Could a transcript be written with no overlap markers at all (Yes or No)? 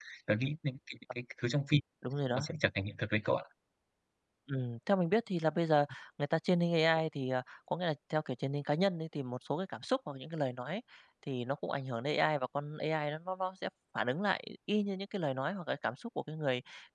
Yes